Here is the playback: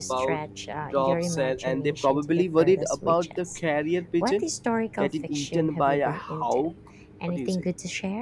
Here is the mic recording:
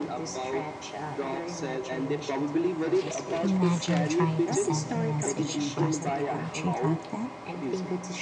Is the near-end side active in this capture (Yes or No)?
Yes